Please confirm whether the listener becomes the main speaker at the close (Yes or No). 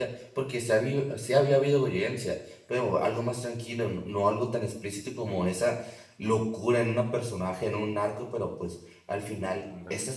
No